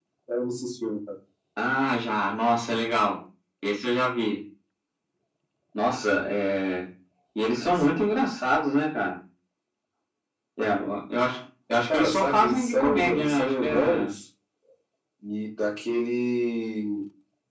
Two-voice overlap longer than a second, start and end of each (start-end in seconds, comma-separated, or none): 11.9-14.1